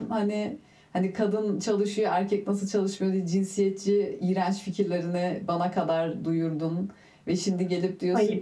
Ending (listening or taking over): listening